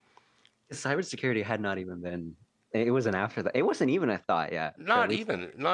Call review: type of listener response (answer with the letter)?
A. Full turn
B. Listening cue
A